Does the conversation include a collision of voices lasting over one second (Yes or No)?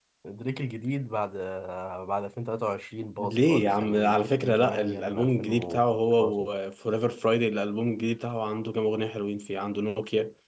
Yes